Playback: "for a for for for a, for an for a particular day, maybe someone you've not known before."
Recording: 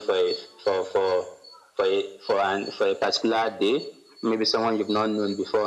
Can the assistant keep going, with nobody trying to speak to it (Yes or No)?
Yes